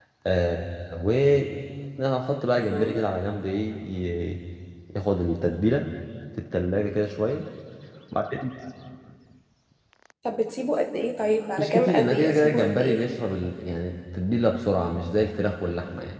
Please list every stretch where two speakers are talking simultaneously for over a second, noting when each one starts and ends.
11.6-13.0

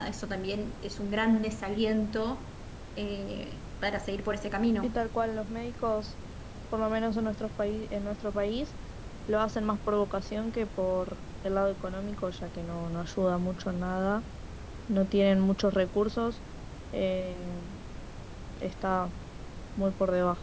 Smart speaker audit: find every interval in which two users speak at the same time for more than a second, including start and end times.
none

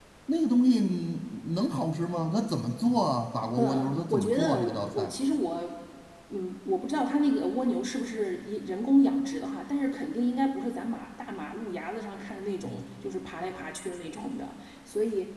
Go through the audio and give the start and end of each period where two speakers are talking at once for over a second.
3.6-5.1

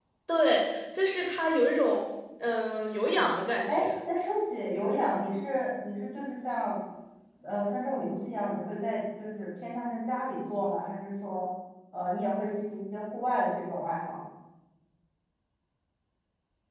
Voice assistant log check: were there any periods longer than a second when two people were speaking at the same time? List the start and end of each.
none

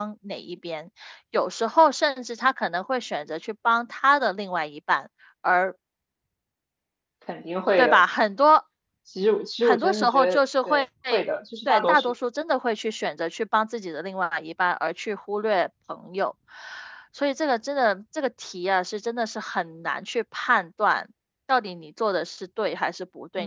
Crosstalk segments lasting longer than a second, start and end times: 9.6-10.8

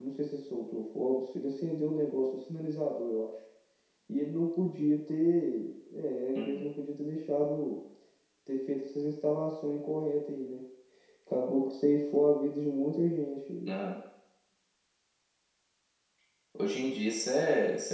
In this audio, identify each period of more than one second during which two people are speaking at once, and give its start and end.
none

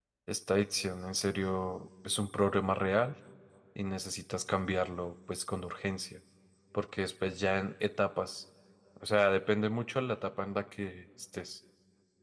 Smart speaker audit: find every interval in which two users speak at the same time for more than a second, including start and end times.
none

